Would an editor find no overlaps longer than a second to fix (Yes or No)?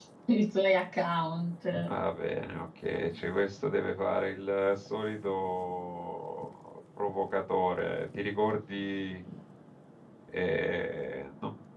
Yes